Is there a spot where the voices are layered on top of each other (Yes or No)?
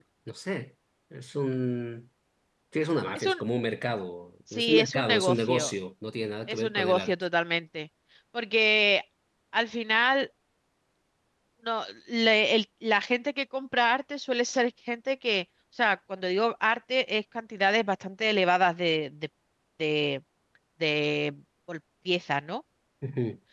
Yes